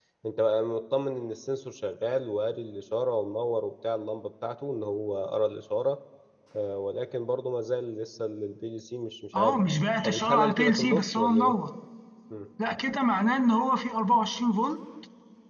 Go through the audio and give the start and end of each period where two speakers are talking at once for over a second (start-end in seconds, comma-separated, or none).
10.0-11.6